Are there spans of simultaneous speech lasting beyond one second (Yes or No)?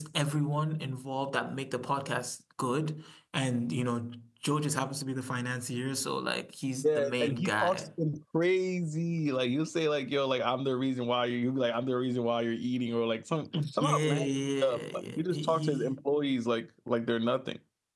Yes